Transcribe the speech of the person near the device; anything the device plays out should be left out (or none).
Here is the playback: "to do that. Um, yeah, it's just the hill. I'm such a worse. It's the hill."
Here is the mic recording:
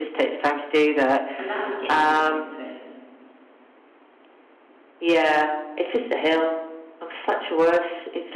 and that'll get you back into it.